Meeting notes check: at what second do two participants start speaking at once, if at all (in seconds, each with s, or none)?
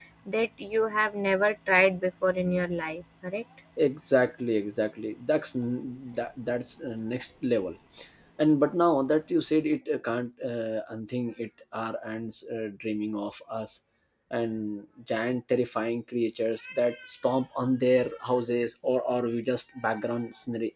none